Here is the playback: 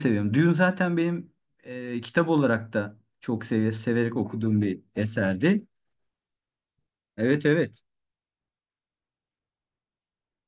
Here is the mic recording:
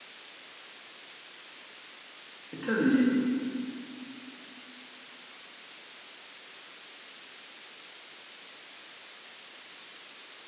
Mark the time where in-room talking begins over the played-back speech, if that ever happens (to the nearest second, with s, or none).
3 s